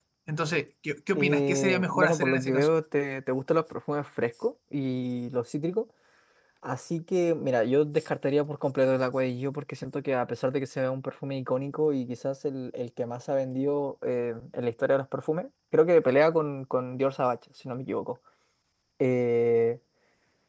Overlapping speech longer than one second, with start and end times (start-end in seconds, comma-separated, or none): 1.1-2.7